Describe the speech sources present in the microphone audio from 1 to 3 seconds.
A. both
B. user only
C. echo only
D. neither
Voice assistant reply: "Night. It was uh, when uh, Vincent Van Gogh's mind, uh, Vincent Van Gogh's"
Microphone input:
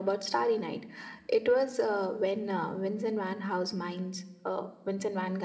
C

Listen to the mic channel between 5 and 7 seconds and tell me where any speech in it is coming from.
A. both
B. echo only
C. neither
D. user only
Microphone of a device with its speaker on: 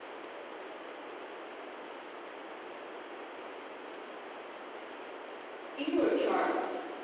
D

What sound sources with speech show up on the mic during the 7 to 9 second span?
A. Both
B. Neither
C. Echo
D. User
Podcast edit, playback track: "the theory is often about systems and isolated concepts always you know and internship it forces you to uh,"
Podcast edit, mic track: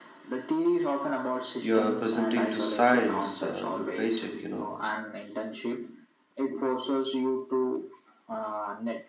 C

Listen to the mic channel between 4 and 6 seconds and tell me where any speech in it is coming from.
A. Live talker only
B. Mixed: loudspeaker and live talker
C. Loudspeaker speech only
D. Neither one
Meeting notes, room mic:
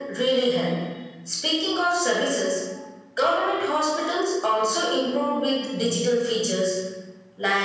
C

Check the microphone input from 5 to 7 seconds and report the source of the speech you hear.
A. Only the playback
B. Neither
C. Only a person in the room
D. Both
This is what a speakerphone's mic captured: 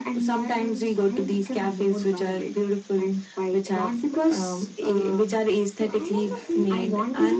D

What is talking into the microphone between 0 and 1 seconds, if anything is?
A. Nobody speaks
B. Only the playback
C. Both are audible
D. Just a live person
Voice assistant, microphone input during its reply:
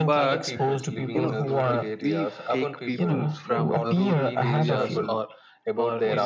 C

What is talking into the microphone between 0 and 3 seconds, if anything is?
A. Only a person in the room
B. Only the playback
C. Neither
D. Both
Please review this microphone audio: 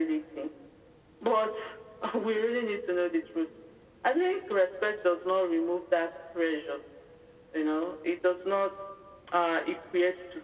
B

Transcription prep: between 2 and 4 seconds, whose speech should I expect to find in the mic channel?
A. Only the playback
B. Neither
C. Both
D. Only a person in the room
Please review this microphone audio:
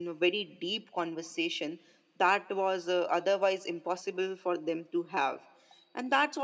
A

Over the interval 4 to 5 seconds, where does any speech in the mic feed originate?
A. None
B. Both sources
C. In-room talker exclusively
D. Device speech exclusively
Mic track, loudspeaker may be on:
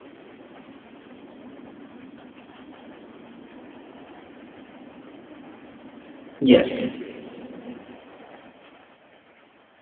A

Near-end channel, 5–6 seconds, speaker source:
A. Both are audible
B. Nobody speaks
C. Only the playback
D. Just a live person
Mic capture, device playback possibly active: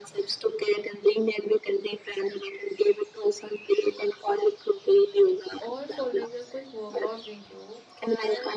A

